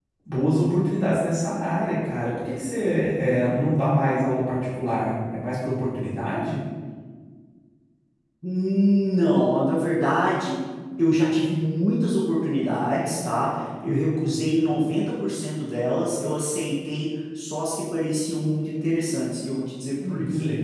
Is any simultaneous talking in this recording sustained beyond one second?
No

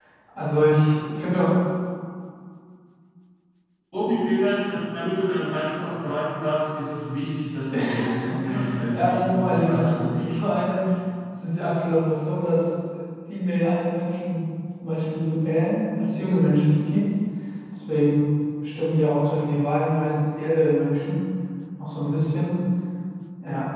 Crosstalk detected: Yes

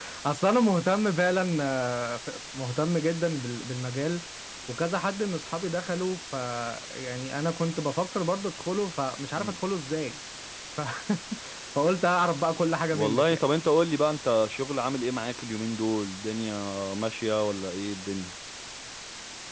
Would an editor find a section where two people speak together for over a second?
No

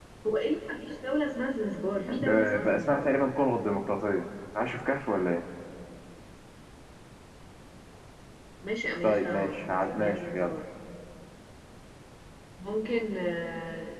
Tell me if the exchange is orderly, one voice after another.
No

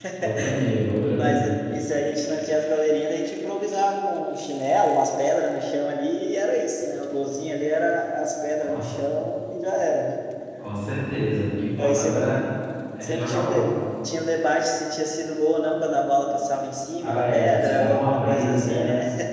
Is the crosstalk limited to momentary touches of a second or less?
No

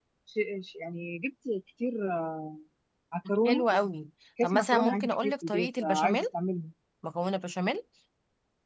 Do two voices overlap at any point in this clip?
Yes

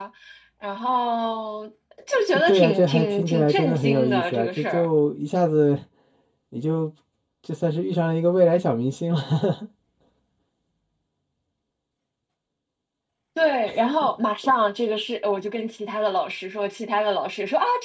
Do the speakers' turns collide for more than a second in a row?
Yes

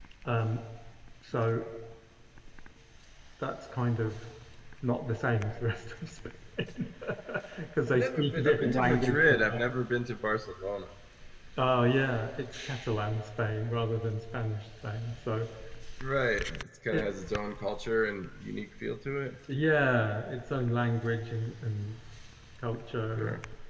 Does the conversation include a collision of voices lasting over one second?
Yes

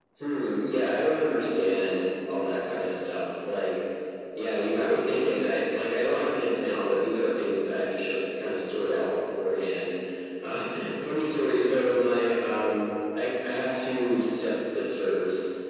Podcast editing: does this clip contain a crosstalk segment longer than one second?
No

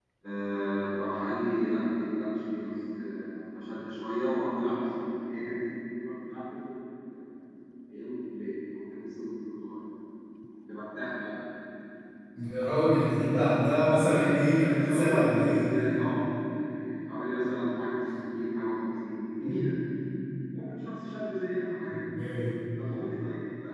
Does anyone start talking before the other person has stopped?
Yes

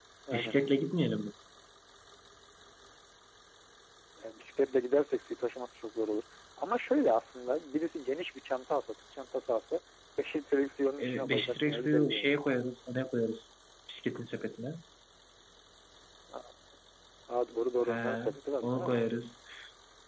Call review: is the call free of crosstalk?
No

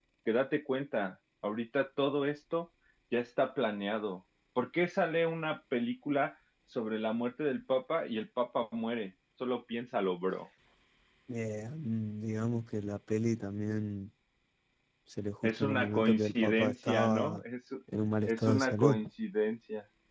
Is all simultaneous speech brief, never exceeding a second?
No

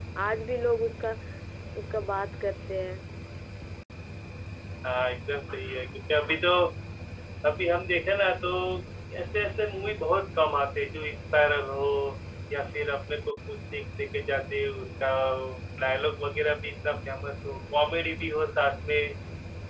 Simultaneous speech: No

